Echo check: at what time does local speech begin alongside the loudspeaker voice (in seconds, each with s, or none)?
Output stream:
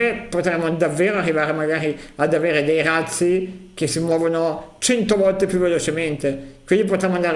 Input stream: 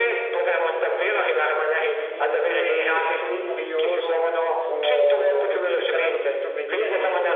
2.1 s